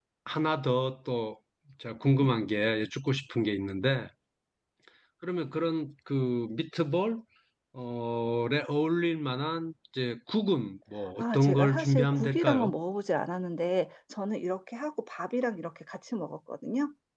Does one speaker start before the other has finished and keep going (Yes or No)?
Yes